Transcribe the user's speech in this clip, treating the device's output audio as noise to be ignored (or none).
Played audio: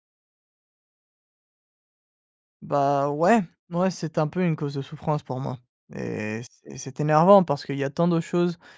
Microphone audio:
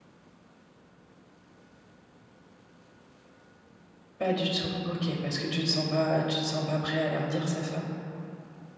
Pas du tout, OK, parce que tu te sens pas, heu, tu te sens pas prêt à leur dire, c'est ça?